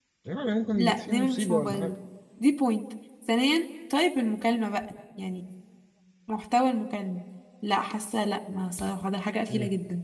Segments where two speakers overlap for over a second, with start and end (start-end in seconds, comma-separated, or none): 0.7-1.9